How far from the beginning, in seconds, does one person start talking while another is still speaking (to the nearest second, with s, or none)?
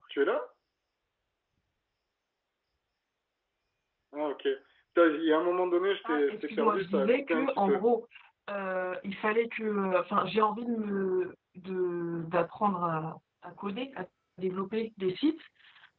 6 s